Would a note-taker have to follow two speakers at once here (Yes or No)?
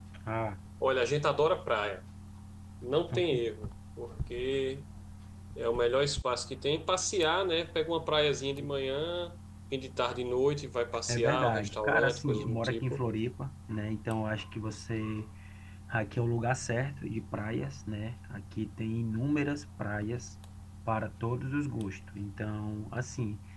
Yes